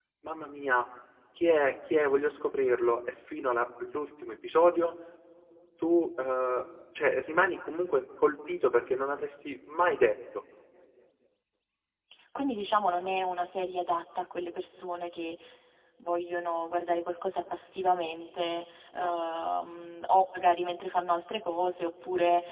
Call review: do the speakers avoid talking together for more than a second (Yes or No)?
Yes